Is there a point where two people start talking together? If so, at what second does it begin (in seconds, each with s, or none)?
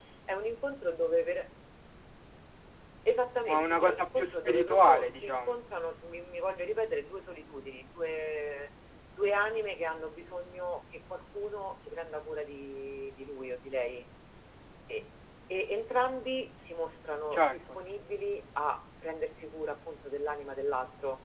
3.5 s